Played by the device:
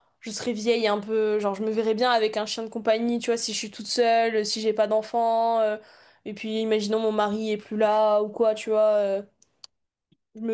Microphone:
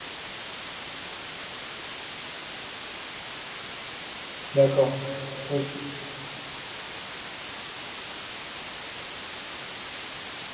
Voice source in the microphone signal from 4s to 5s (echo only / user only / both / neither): user only